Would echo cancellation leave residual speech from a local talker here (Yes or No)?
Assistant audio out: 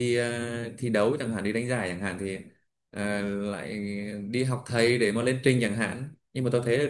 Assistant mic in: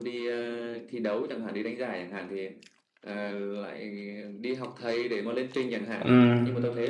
Yes